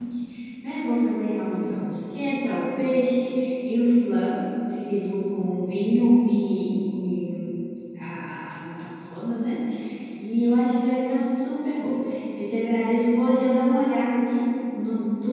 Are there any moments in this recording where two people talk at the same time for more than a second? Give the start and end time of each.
none

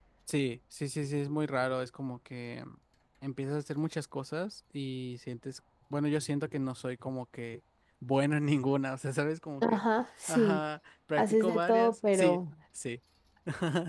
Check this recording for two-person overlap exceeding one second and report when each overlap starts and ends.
11.2-12.4

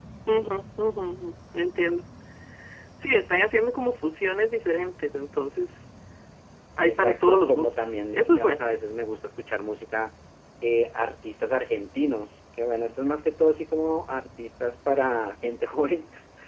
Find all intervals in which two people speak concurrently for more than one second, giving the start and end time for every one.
6.8-8.7

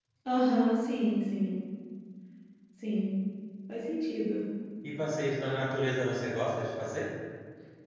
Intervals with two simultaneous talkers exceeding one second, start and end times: none

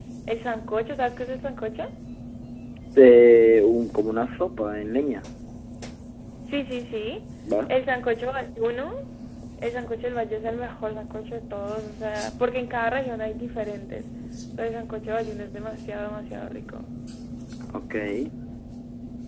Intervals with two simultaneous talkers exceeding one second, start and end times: none

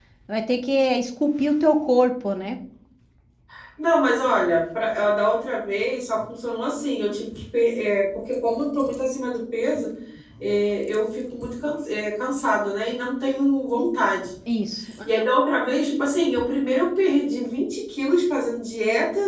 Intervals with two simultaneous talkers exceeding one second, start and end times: none

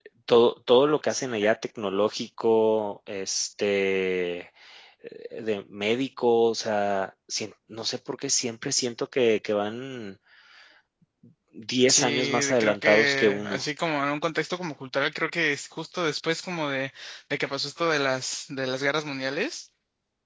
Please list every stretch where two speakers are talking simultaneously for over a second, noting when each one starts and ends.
11.9-13.6

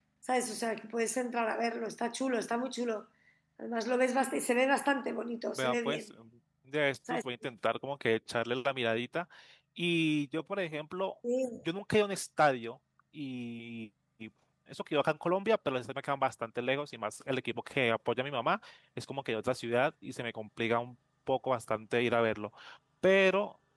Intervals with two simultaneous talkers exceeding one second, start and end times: none

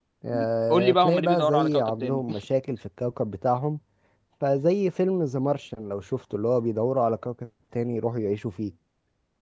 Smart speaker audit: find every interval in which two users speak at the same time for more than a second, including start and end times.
0.7-2.2

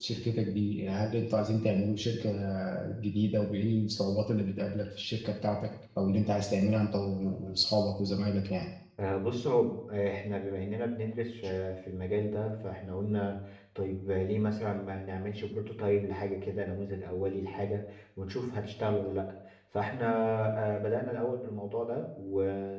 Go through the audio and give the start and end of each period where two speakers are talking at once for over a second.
none

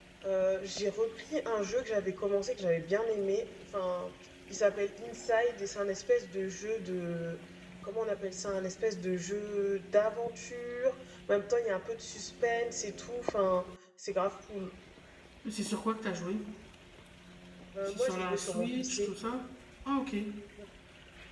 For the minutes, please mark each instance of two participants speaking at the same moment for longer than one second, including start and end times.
17.9-19.1

